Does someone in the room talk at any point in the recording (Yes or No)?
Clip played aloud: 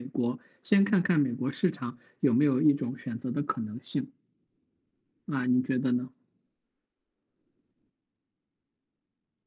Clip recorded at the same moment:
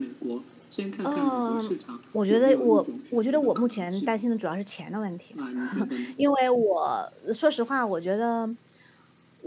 Yes